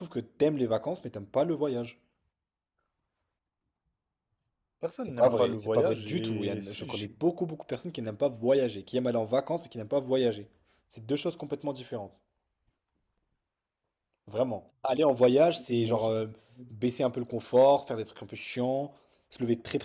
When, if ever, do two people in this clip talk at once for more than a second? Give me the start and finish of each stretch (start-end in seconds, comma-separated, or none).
5.0-7.1